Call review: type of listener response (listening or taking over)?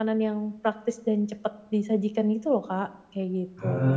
taking over